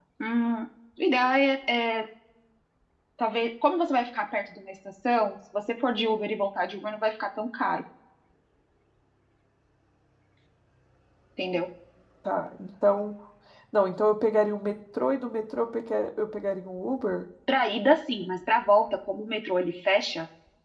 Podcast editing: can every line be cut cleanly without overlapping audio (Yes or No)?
Yes